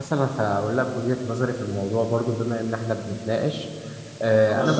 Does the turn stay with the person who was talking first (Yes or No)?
Yes